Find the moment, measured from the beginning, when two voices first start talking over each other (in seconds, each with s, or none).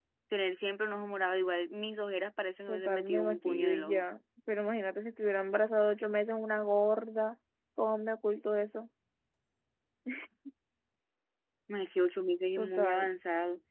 2.7 s